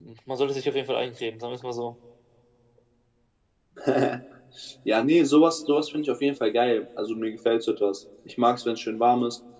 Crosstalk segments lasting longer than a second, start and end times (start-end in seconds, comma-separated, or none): none